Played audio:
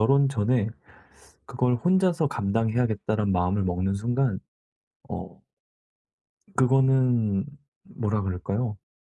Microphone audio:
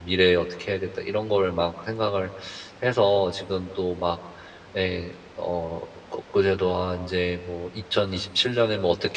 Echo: none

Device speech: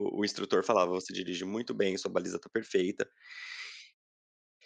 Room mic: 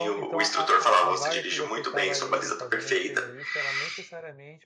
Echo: present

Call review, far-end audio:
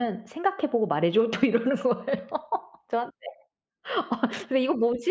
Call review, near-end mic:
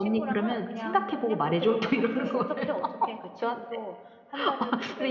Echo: present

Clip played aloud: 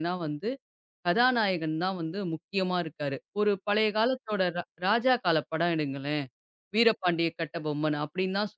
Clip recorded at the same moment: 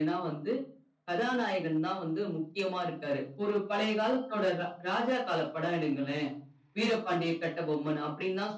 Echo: present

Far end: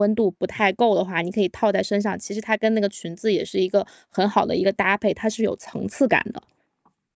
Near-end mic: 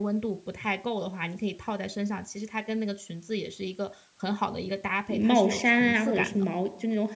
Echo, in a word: present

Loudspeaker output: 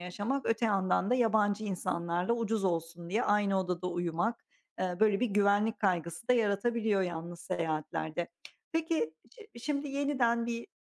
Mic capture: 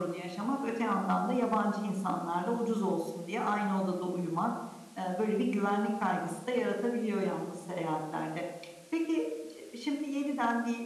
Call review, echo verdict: present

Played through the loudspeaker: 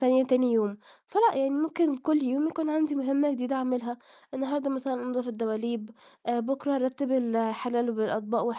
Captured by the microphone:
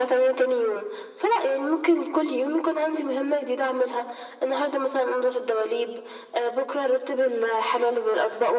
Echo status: present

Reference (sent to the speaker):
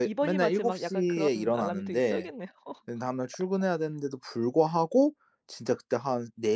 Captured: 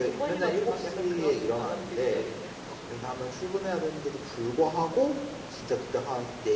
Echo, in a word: present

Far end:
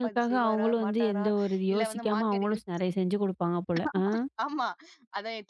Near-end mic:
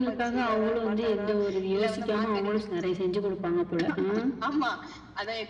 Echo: present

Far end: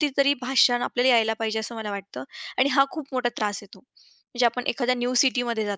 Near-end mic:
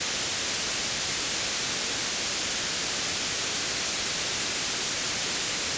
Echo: none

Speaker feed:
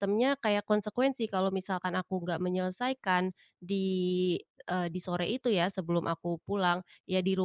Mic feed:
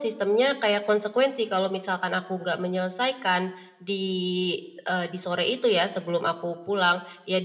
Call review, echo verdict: present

